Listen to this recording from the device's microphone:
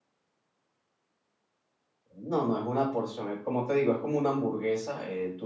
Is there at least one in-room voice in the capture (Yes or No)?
Yes